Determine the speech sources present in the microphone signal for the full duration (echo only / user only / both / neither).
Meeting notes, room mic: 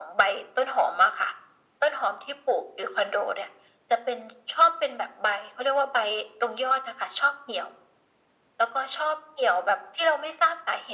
echo only